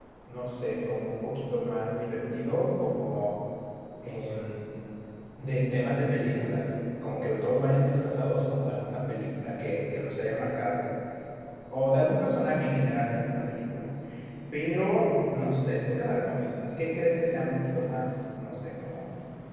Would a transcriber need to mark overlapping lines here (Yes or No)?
No